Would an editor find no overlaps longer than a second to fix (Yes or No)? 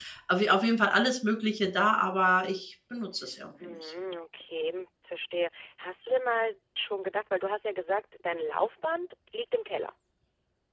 Yes